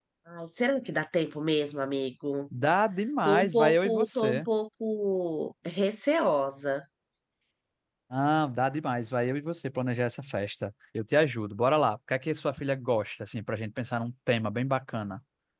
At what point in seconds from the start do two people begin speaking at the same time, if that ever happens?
3.2 s

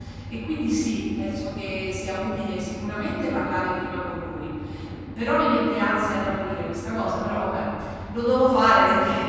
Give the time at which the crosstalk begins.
none

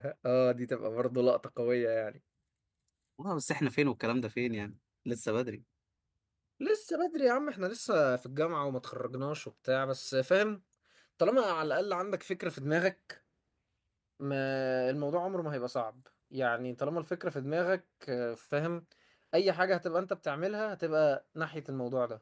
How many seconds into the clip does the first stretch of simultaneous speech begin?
none

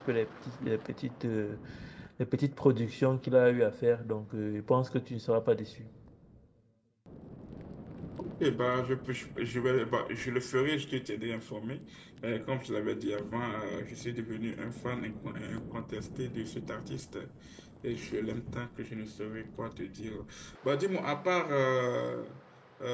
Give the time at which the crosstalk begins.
none

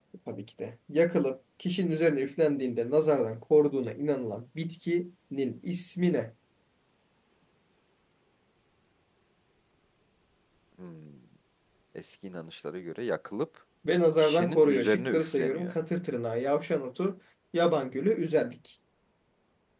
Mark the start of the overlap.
14.2 s

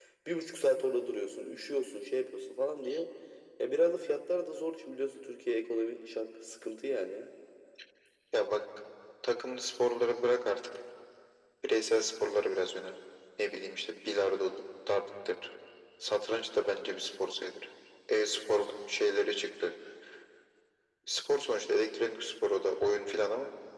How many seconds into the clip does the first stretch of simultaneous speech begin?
none

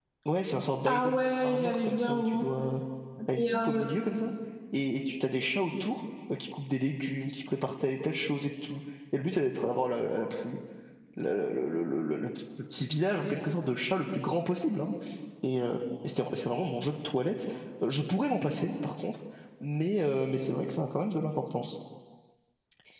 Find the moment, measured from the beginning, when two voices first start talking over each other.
0.9 s

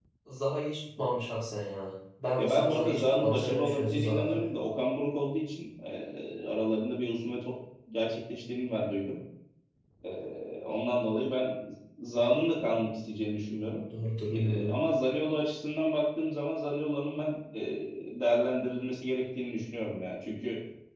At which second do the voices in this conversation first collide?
2.4 s

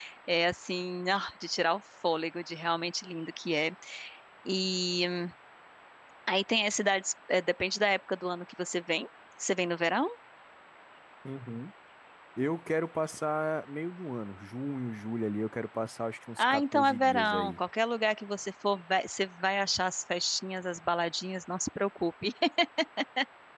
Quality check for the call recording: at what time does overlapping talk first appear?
16.4 s

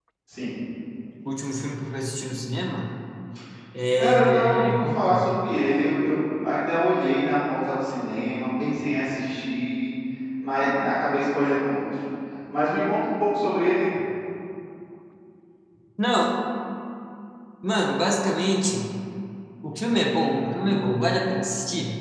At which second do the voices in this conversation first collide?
4.0 s

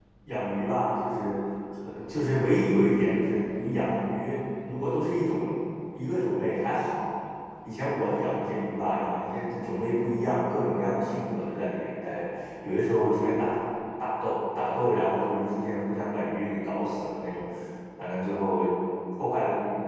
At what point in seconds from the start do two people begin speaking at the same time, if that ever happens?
none

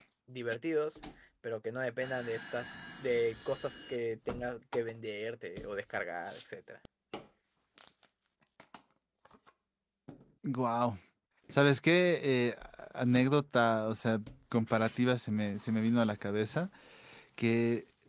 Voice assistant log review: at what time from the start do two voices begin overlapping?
none

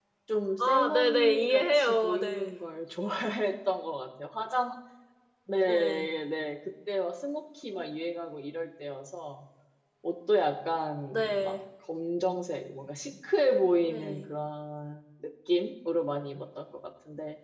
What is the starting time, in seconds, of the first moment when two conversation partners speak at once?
0.6 s

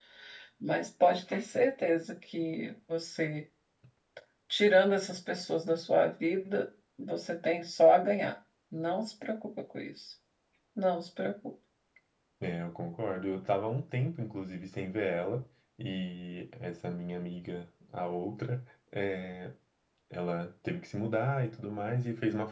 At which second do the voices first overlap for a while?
none

